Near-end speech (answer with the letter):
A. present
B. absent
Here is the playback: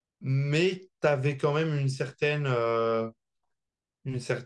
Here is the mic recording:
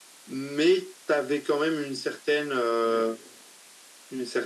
A